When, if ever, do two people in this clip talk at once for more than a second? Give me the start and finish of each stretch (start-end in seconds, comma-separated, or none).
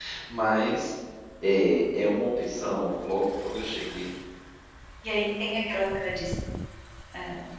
none